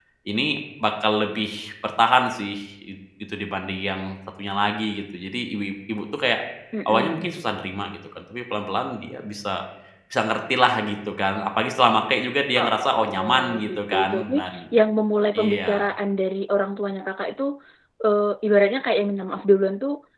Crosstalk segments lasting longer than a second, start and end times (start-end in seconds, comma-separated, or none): 12.6-14.3